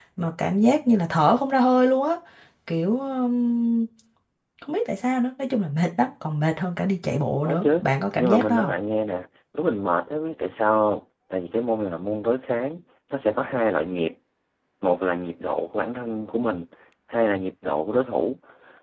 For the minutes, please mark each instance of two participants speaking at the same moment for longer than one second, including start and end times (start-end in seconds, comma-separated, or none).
none